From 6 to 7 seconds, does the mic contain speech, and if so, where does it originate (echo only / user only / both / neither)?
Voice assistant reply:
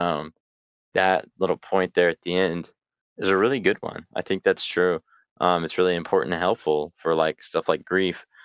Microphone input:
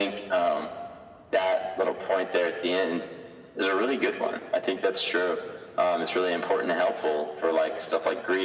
echo only